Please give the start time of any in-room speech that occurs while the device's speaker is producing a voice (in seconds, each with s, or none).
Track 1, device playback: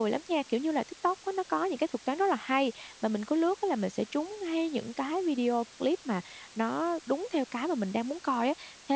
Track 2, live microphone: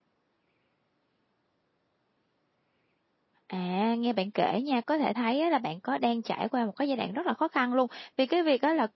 3.5 s